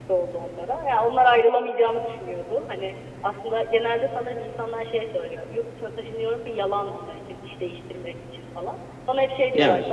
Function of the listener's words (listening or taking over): listening